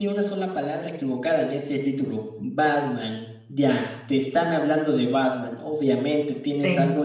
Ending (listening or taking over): listening